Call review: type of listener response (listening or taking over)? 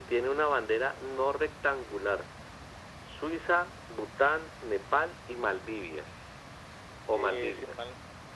taking over